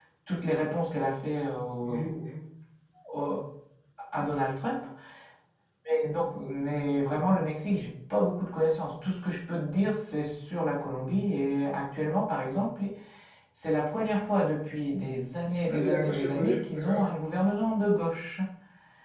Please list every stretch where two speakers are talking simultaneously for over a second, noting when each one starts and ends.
15.7-17.0

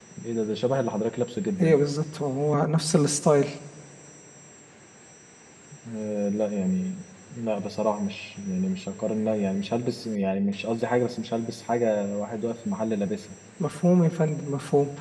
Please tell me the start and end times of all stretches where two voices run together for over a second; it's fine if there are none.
none

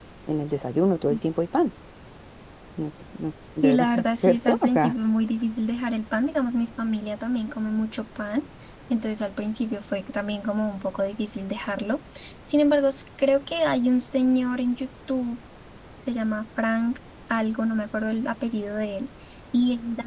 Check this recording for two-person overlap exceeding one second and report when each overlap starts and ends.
3.6-4.9

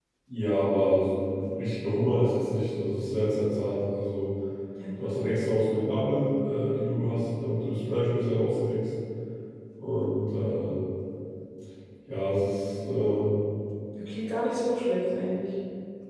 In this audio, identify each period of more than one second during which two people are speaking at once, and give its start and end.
none

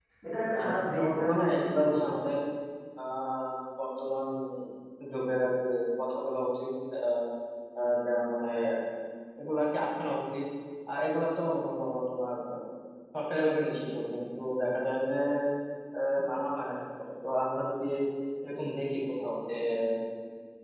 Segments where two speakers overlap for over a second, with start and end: 0.6-2.1

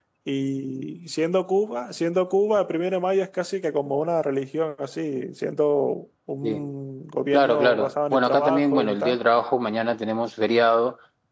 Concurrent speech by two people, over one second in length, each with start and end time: 7.3-9.2

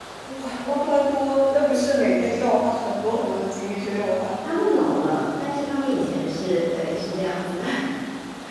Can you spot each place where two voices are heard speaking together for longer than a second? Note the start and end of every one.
none

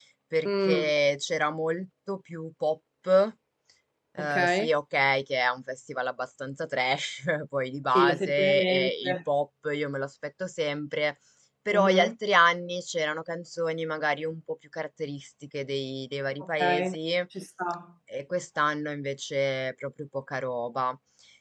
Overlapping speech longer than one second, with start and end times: 8.0-9.2

